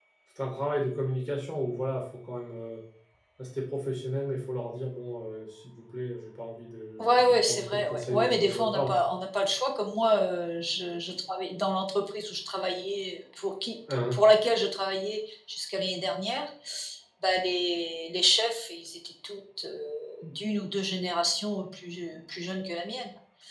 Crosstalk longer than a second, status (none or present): present